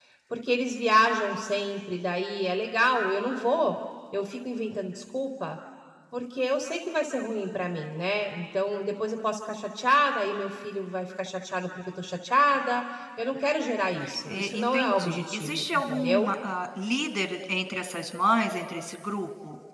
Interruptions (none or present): present